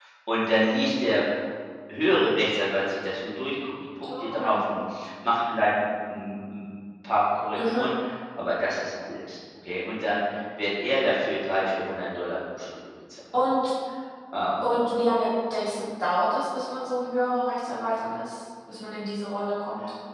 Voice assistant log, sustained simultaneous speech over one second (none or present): none